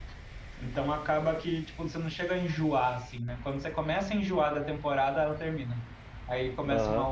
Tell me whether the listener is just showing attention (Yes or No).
No